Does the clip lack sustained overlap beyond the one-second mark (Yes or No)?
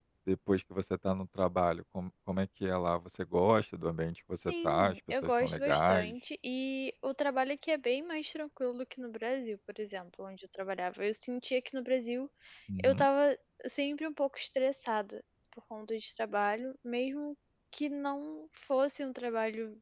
No